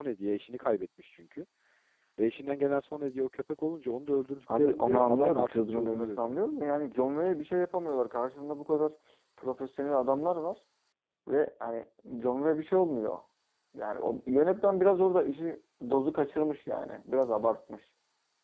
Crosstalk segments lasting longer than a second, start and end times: 4.6-6.4

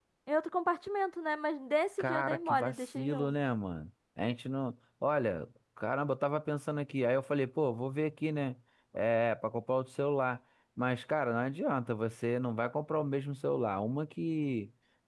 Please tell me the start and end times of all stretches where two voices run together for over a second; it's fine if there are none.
2.0-3.3

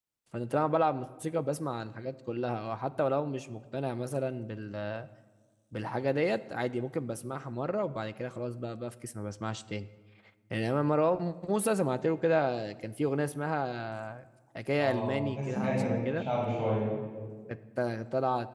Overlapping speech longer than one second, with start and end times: 14.8-16.3

